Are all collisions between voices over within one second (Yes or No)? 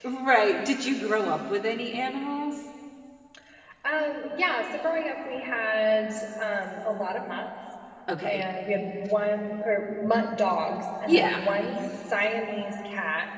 Yes